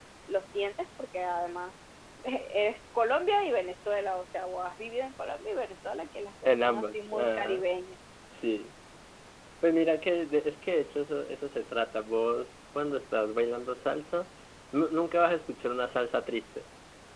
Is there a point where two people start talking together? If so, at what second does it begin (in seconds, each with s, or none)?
6.5 s